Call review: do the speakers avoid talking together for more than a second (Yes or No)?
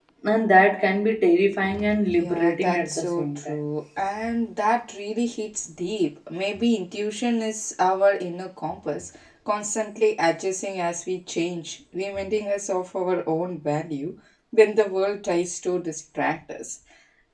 No